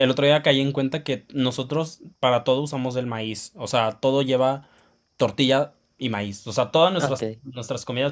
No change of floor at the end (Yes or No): Yes